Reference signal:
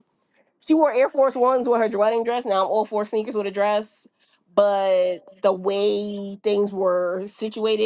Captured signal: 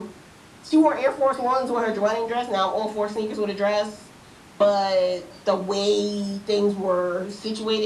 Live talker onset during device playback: none

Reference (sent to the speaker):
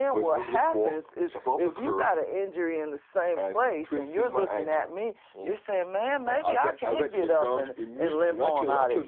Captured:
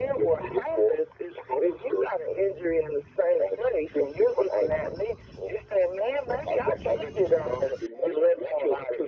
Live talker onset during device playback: none

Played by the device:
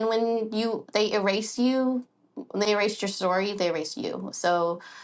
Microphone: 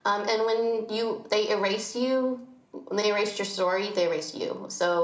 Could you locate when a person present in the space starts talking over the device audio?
none

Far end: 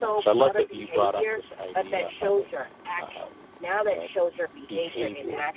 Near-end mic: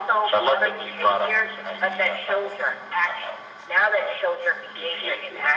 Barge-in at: none

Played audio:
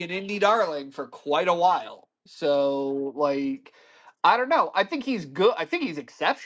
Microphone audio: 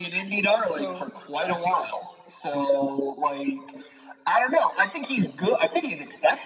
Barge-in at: 0.7 s

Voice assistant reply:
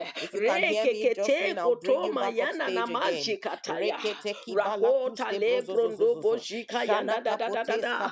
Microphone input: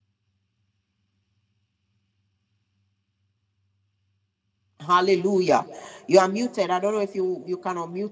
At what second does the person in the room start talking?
4.8 s

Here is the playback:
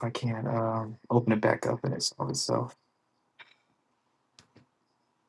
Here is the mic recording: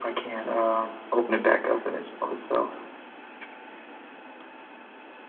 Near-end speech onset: none

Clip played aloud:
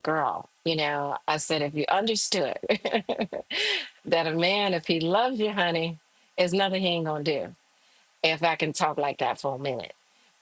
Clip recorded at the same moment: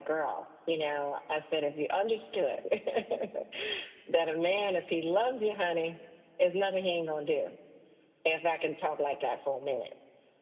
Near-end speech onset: none

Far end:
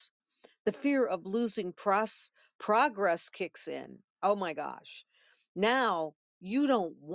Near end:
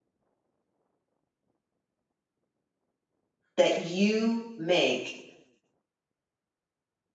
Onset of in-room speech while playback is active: 3.6 s

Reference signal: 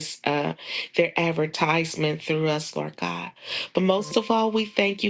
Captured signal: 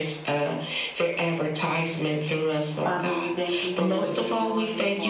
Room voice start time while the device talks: 2.8 s

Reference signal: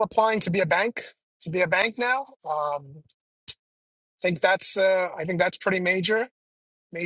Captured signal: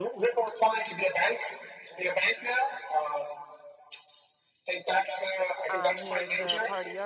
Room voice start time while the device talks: 5.7 s

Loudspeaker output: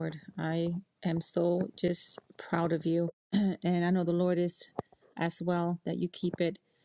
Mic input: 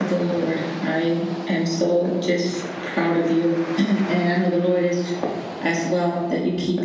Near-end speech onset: none

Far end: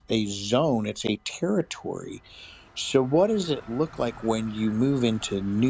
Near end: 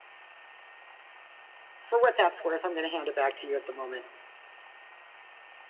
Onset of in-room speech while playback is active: 1.8 s

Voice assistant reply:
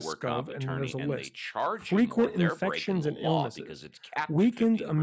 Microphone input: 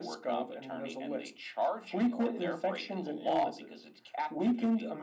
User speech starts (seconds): none

